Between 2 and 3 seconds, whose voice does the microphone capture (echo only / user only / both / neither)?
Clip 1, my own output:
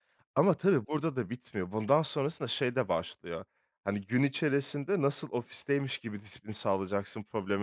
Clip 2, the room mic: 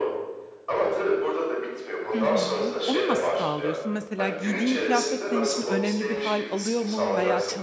both